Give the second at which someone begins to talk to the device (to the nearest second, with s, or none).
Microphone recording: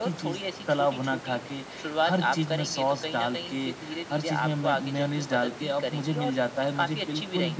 none